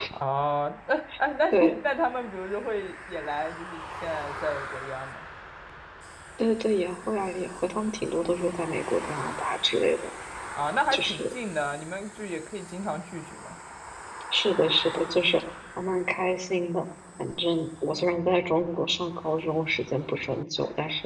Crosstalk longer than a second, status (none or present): none